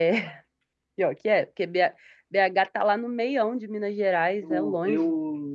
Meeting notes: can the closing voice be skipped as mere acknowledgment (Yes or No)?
No